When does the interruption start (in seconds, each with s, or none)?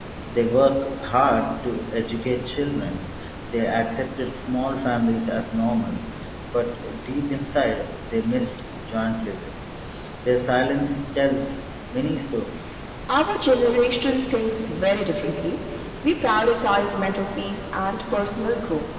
none